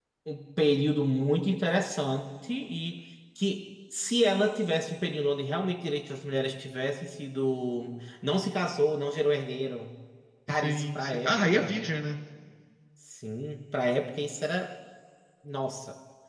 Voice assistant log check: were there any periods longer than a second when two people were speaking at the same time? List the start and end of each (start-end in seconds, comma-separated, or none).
10.5-11.8